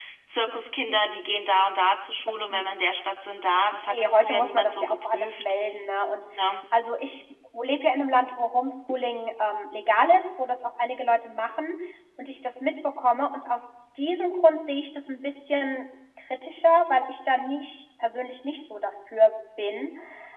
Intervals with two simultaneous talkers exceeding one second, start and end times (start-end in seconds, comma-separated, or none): 3.9-5.4